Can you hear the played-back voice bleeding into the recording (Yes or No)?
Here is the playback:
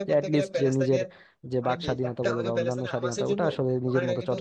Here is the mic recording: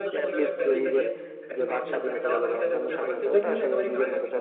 Yes